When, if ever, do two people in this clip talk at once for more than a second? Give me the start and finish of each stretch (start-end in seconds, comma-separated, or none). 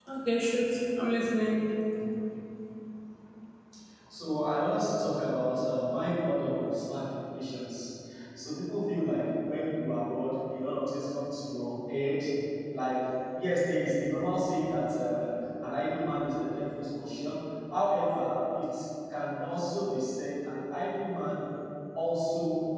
none